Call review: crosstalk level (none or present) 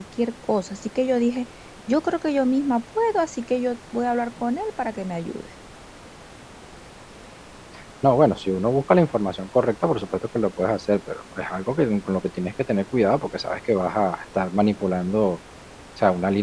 none